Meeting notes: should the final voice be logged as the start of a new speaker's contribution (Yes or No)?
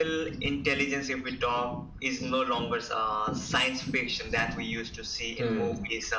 No